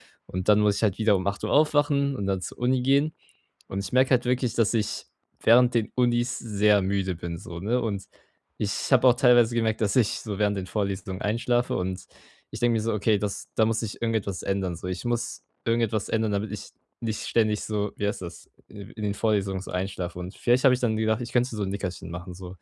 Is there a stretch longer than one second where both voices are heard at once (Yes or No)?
No